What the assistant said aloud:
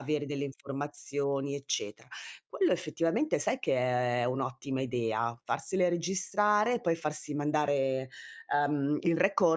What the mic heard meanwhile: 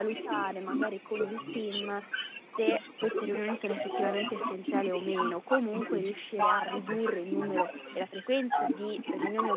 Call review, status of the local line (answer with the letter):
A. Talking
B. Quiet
A